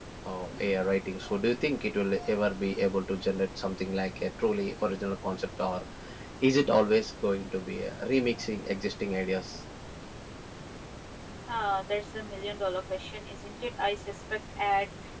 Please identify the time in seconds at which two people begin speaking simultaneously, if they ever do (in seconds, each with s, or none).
none